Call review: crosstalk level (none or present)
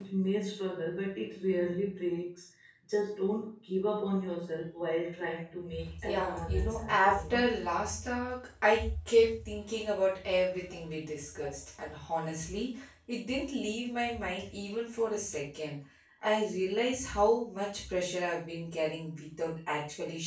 present